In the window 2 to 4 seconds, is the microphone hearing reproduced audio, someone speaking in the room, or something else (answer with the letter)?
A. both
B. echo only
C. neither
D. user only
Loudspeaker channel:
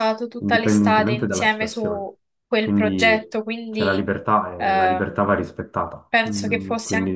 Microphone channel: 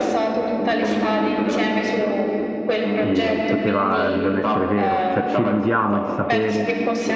A